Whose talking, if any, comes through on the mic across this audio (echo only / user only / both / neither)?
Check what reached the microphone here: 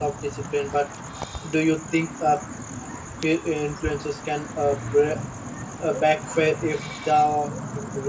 user only